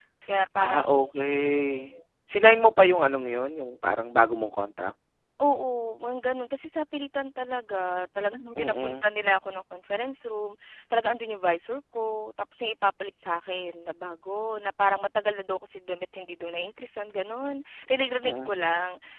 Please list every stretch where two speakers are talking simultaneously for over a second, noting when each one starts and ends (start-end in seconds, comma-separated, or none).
none